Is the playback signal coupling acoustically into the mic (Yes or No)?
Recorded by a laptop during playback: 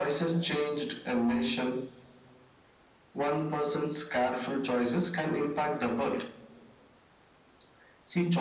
Yes